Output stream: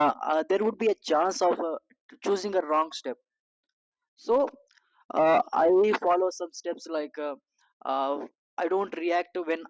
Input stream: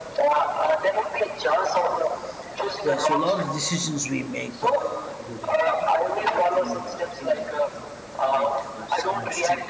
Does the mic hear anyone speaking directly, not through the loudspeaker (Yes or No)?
Yes